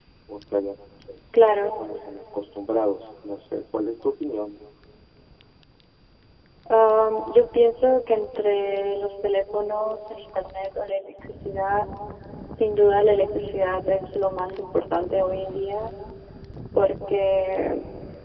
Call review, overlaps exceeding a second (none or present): none